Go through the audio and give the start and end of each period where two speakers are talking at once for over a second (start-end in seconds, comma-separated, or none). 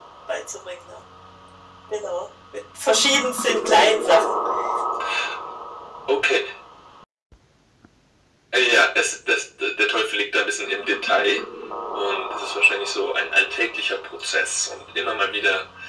none